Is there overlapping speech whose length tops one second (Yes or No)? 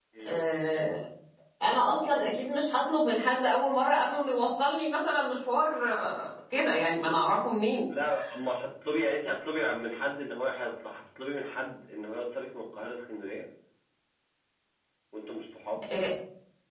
No